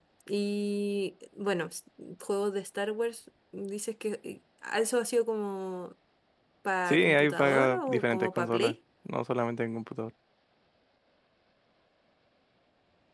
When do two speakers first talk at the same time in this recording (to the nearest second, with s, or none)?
7 s